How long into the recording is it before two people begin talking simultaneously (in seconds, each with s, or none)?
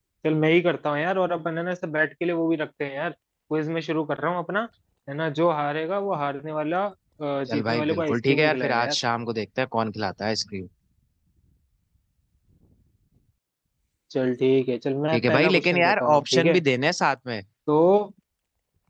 7.5 s